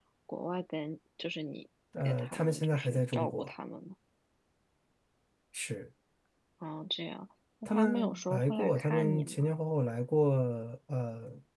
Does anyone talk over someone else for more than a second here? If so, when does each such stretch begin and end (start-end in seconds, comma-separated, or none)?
2.0-3.5, 7.7-9.6